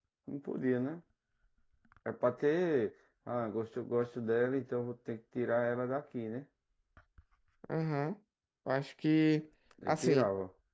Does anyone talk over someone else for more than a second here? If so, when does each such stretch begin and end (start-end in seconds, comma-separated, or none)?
none